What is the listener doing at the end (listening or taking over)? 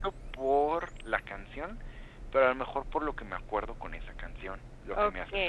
taking over